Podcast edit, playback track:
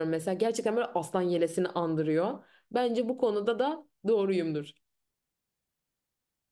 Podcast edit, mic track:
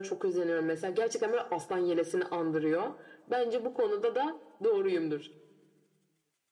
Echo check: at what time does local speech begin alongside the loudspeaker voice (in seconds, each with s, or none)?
none